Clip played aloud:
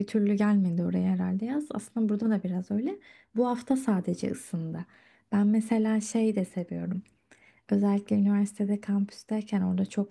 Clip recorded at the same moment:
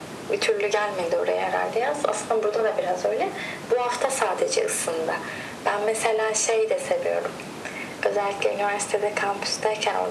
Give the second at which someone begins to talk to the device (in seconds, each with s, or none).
none